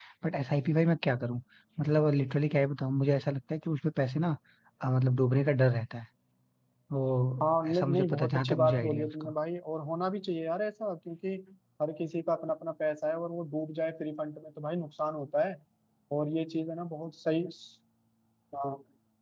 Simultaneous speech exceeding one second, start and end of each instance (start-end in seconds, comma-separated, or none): 7.4-9.3